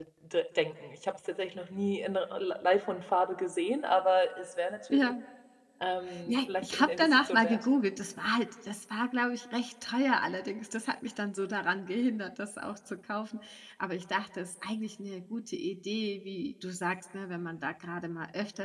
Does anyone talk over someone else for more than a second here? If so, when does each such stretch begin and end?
6.3-7.6

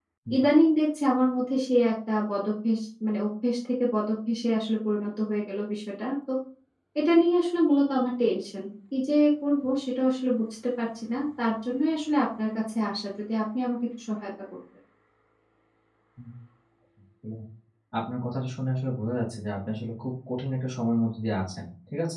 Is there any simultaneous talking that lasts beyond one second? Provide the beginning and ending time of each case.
none

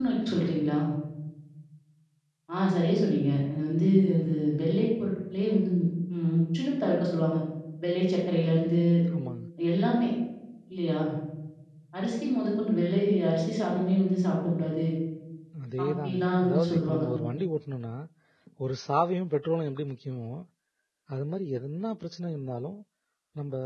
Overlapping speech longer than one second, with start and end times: 15.8-17.0

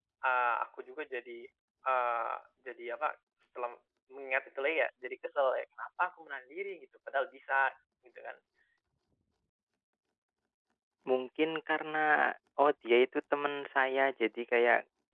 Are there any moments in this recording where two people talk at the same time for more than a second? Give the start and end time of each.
none

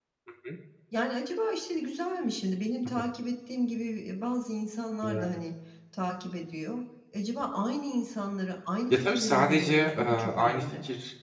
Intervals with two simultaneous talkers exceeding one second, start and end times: 8.9-10.6

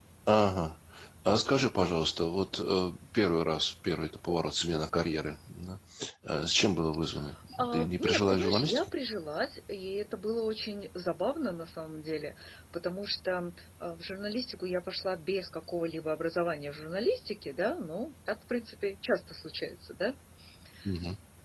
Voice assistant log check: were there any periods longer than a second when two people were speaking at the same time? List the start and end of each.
7.7-8.9

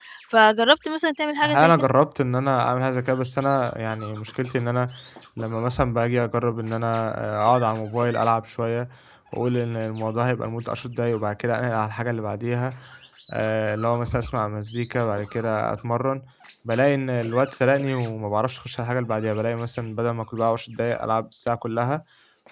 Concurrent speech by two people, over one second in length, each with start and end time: none

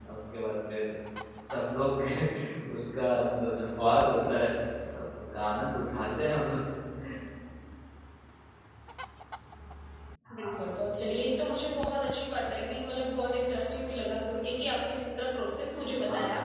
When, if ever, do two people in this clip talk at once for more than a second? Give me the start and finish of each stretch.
none

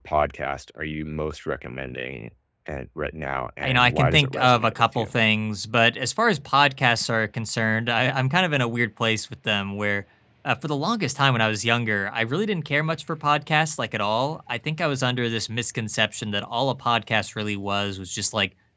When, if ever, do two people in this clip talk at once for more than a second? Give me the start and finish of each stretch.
3.6-5.2

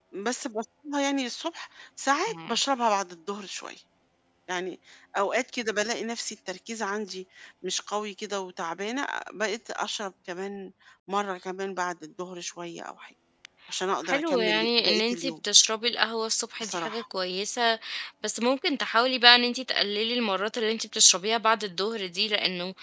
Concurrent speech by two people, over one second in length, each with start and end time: 14.1-15.3

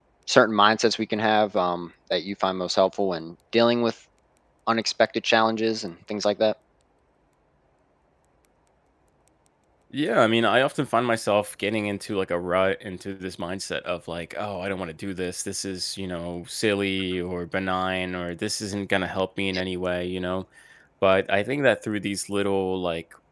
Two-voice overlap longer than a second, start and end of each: none

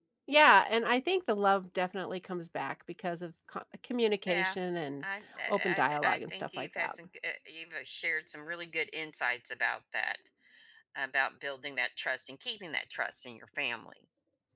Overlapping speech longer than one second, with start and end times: 5.5-7.0

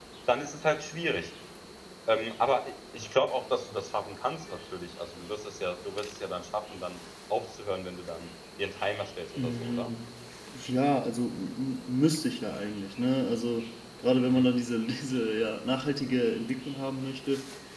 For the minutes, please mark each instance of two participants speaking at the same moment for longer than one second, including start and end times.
none

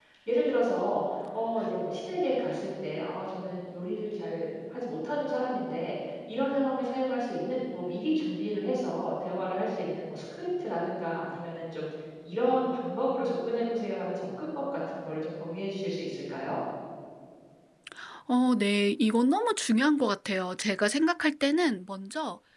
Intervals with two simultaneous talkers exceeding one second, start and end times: none

